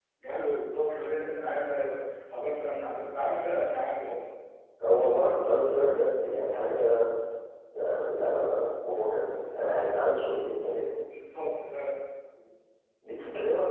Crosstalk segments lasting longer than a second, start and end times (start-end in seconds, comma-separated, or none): none